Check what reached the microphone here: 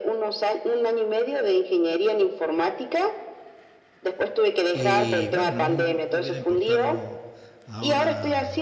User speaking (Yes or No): Yes